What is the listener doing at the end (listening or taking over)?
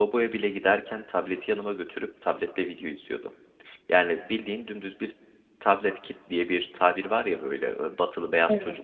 listening